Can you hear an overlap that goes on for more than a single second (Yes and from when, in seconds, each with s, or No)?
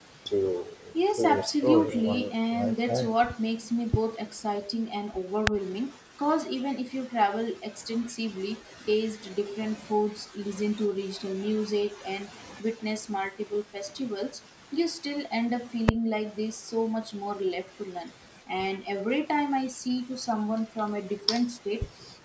Yes, from 1.2 s